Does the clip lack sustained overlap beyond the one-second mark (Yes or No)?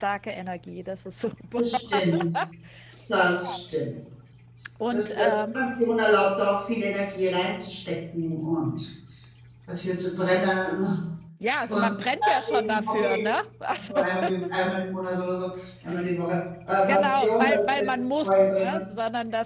No